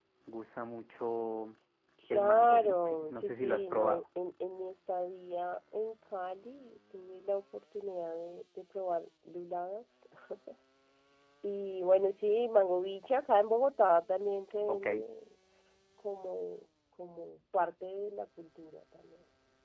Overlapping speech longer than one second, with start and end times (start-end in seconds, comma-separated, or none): 2.1-4.0